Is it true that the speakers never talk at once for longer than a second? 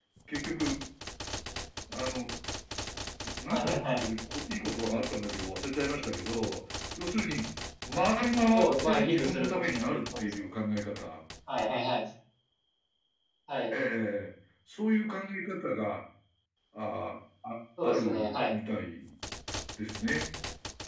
No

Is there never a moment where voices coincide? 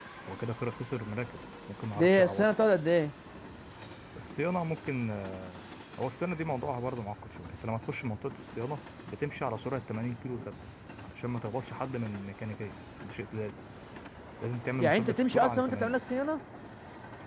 No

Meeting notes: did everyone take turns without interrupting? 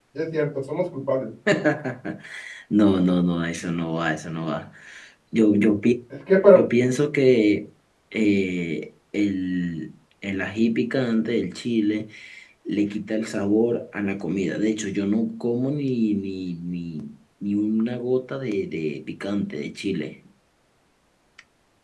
Yes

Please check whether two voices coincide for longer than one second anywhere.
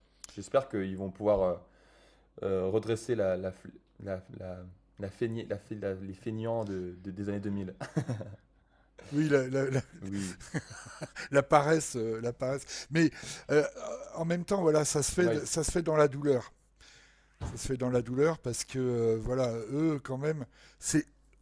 No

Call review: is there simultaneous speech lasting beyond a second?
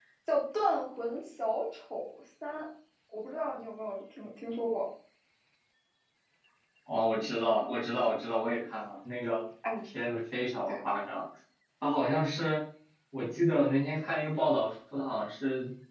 No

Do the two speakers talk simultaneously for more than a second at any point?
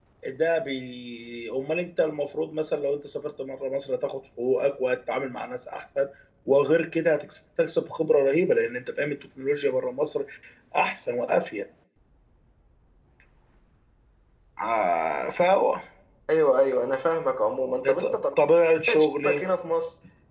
No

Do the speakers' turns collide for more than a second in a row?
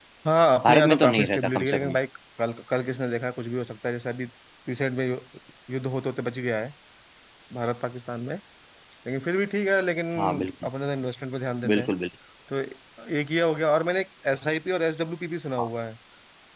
Yes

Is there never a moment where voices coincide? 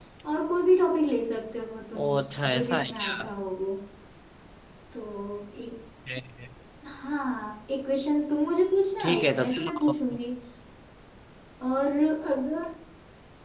No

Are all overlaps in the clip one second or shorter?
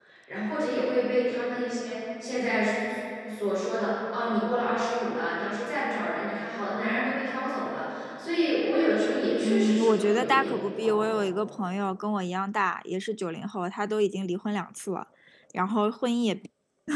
No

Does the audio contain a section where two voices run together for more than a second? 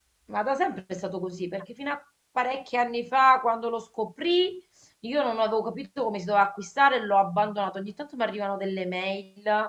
No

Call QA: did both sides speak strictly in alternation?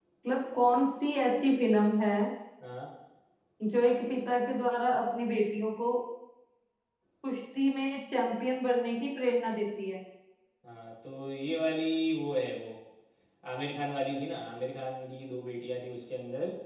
Yes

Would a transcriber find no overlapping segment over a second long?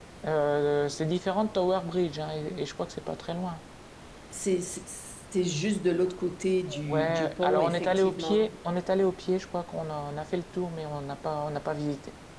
No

